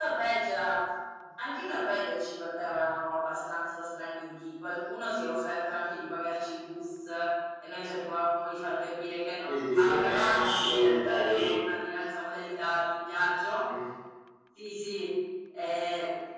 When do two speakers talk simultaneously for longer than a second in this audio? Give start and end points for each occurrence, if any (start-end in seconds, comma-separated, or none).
9.5-11.5